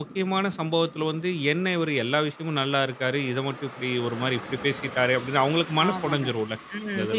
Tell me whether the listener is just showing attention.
No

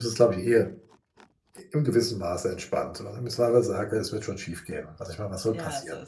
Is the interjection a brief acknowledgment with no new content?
No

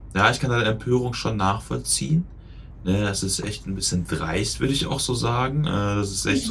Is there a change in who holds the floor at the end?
No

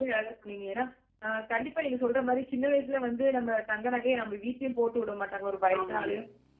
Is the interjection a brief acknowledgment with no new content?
Yes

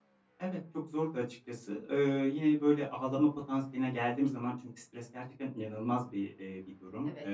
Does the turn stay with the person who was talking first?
Yes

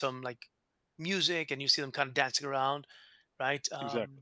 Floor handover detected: No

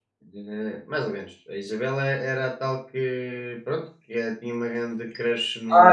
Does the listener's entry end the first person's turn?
Yes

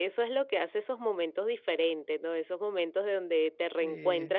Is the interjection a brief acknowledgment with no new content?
Yes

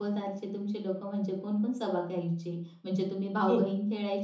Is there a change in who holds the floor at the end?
No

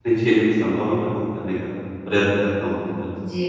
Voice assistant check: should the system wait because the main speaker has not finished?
No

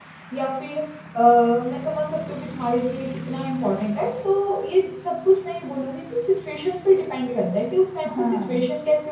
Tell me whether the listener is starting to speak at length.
No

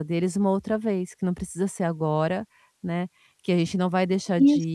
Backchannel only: Yes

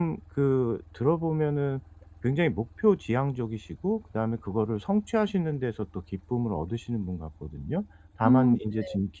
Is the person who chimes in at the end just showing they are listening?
Yes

